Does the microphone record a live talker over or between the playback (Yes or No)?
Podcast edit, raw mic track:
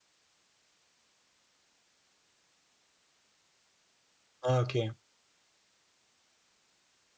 Yes